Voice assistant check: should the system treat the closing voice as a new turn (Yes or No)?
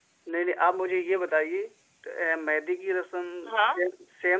No